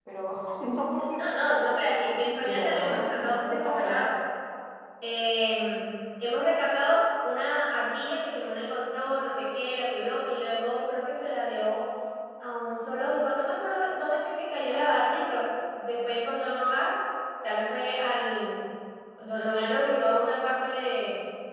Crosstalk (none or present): present